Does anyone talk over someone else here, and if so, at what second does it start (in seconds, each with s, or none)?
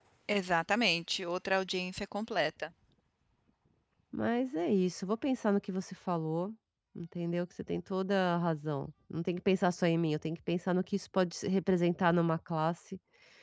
none